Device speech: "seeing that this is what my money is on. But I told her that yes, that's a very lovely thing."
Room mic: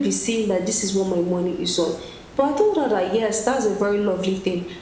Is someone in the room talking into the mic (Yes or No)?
No